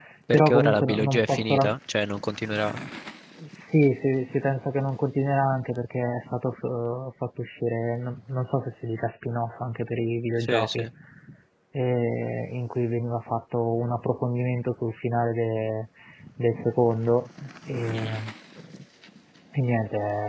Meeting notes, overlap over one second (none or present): present